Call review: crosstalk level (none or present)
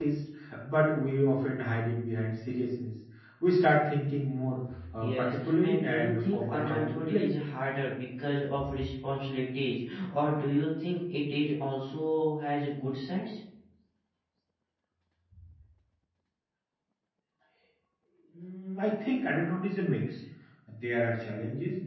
present